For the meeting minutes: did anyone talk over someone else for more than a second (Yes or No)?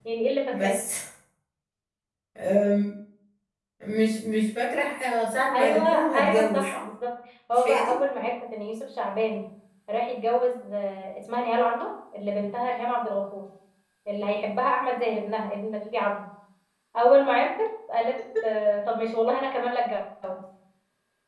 Yes